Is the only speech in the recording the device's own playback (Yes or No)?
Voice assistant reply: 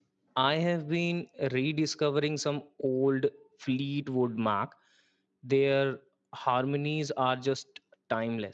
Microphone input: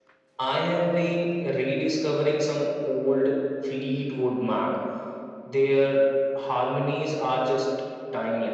Yes